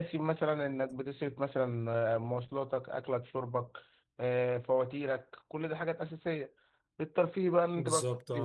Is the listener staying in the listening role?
Yes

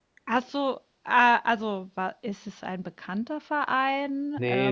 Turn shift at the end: Yes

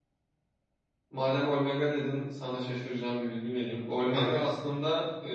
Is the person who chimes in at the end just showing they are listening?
Yes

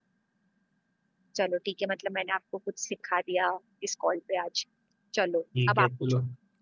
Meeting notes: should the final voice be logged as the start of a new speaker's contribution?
Yes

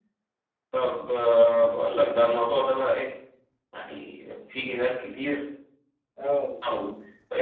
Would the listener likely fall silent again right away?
Yes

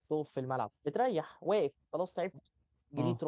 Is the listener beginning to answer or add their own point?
No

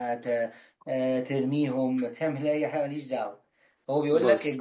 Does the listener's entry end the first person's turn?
No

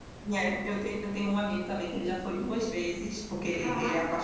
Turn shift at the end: No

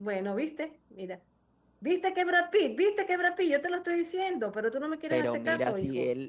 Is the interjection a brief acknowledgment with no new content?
No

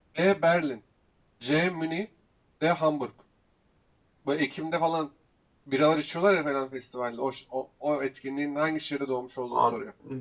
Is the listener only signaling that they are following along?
No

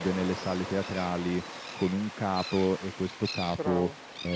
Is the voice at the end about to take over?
No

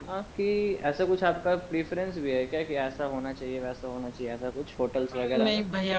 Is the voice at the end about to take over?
Yes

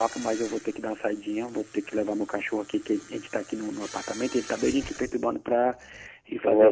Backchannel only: Yes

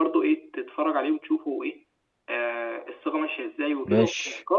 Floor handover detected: No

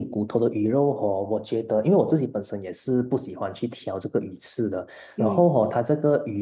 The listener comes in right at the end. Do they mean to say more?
No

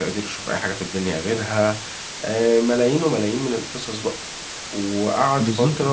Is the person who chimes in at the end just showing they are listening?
No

